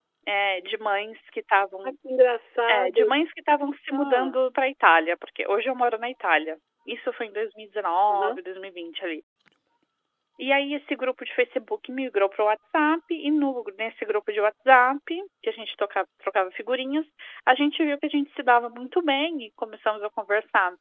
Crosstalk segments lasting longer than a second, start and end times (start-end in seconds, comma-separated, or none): none